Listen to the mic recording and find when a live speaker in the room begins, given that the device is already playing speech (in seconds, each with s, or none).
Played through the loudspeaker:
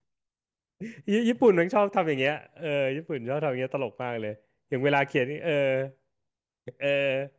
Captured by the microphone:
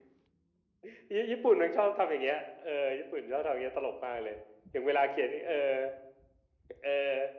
none